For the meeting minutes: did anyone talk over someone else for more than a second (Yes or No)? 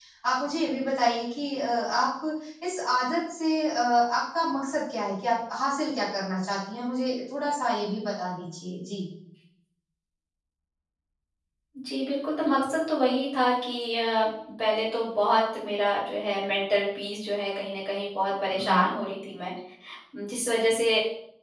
No